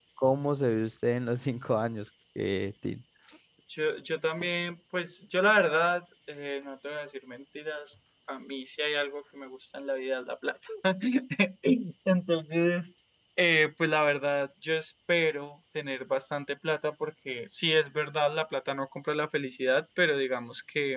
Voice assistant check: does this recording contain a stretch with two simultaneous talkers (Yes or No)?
No